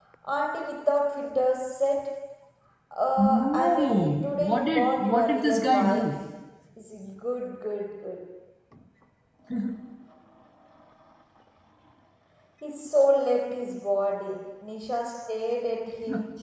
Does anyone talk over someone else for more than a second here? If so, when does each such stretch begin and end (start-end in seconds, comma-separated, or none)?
3.2-6.1